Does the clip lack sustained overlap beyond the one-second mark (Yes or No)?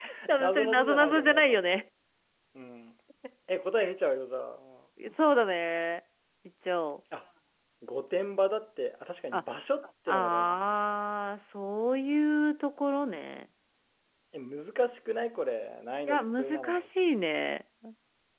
No